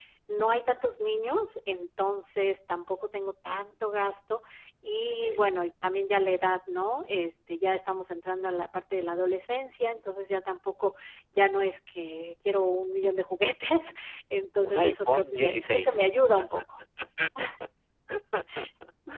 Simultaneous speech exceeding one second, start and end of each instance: 14.6-16.0

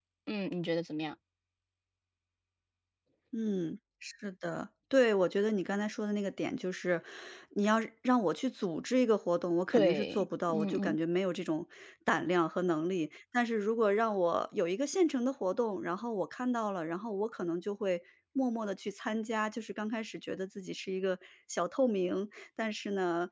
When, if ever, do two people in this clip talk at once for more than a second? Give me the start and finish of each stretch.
9.7-11.0

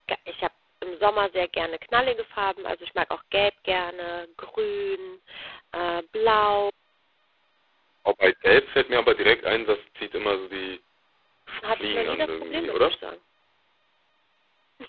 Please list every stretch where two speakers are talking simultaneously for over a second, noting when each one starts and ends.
11.7-12.9

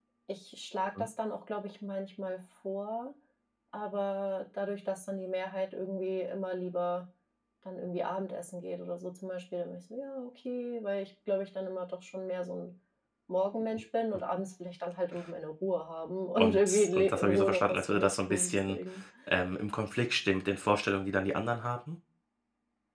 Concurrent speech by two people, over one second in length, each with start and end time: 16.4-18.8

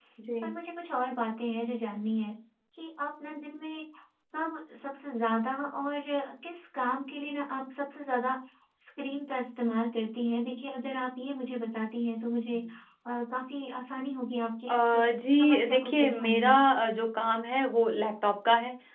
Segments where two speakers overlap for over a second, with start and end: 15.4-16.6

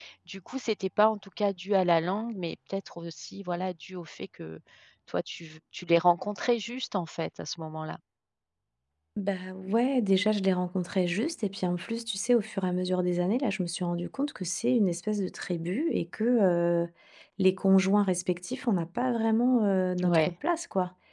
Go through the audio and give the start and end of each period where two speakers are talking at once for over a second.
none

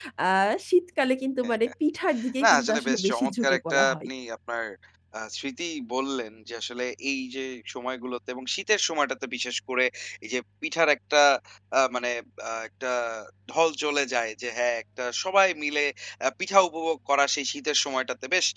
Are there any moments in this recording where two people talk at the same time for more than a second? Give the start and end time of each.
2.4-4.1

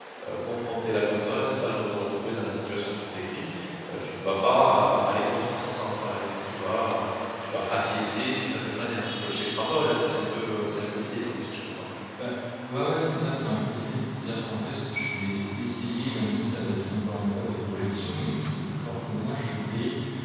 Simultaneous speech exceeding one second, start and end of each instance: none

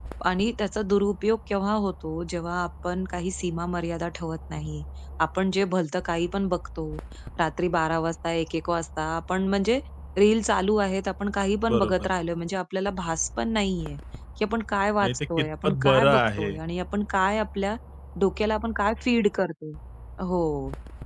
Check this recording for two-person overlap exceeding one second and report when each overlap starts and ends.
15.0-16.5

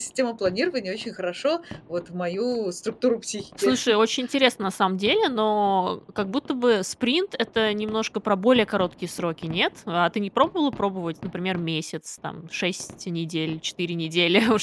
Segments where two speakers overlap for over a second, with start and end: none

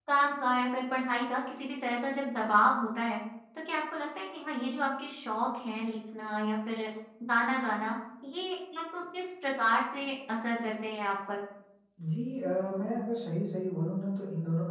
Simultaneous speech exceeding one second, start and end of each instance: none

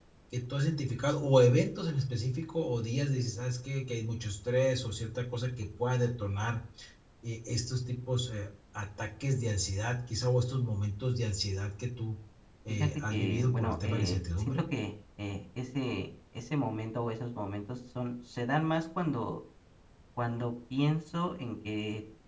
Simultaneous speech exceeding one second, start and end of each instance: 12.7-14.6

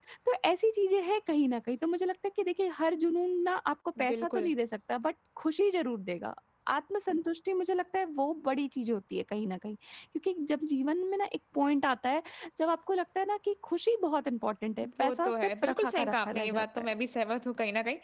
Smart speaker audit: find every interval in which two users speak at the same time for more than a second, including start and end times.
15.0-16.9

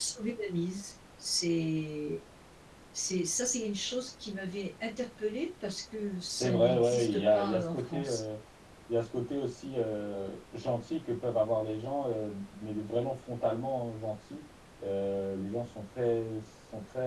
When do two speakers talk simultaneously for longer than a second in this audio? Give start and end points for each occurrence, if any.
6.4-8.2

